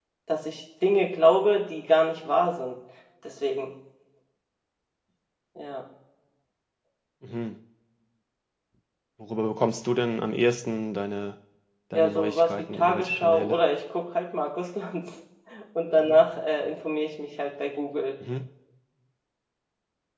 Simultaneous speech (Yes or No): Yes